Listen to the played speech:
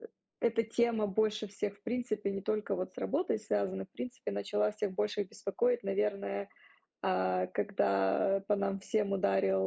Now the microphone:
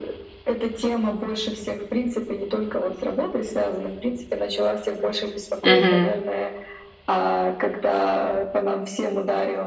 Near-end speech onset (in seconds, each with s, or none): 5.6 s